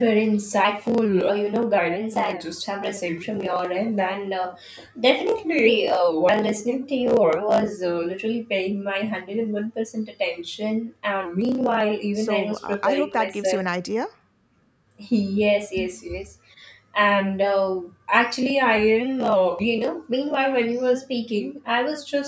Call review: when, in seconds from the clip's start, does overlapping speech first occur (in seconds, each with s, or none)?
12.1 s